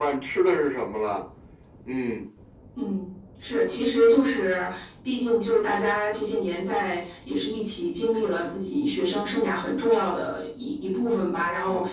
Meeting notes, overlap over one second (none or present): none